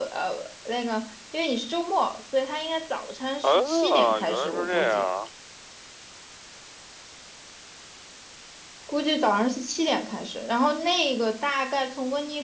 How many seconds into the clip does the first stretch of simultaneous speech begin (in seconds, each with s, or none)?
3.4 s